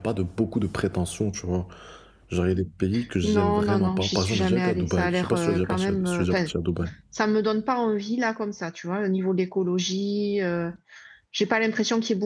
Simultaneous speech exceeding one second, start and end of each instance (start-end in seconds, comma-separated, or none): 3.2-6.5